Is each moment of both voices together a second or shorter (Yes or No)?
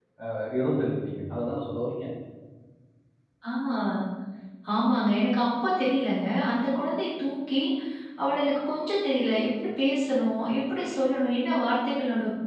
Yes